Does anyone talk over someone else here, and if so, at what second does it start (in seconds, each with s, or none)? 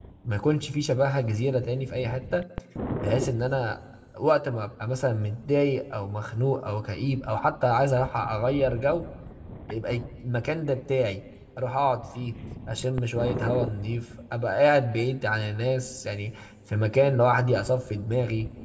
none